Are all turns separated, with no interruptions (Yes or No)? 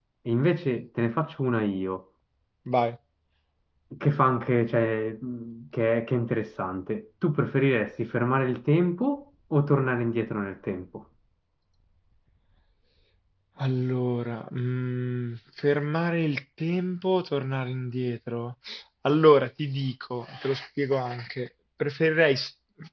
Yes